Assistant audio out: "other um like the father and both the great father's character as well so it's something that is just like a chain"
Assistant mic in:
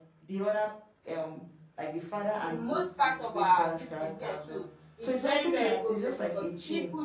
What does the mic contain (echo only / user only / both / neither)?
both